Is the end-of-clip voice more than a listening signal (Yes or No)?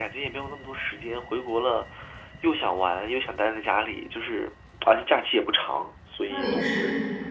Yes